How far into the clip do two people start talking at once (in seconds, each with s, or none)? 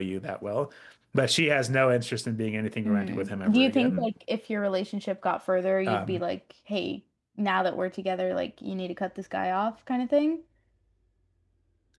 2.9 s